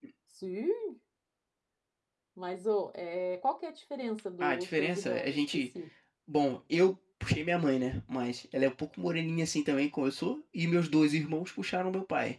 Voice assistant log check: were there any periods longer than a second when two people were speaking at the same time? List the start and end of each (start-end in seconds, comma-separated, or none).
4.4-5.7